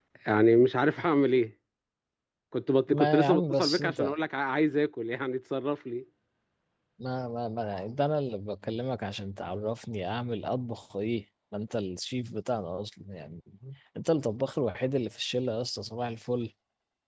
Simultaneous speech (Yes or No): Yes